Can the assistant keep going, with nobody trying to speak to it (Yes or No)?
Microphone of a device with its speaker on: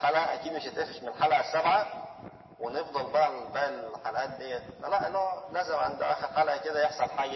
Yes